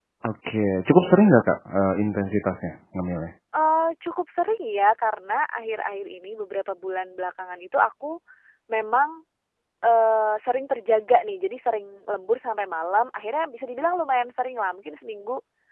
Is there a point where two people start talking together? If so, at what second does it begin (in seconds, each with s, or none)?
none